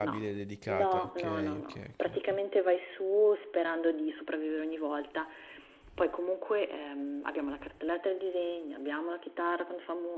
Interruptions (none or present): present